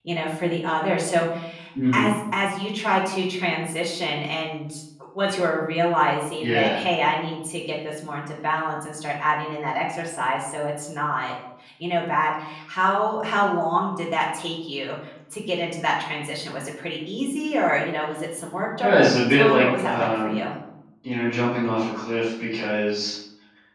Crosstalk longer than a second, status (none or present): present